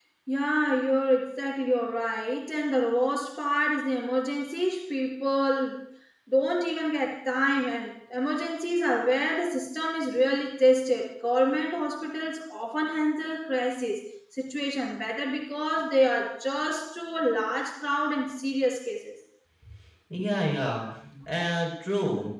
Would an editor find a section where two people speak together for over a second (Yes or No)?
No